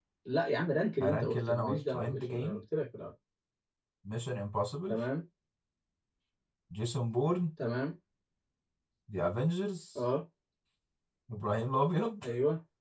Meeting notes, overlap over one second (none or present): present